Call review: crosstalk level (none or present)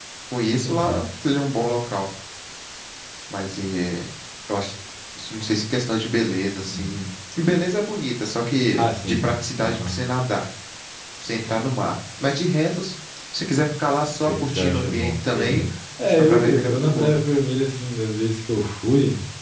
present